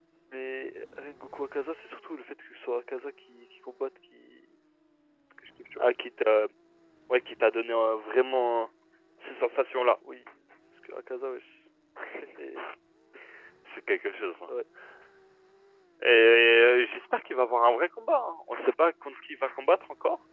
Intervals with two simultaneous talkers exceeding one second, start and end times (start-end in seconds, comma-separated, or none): none